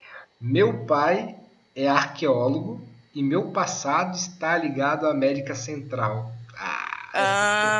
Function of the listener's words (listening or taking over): taking over